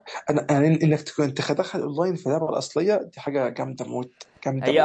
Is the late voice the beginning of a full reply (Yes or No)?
Yes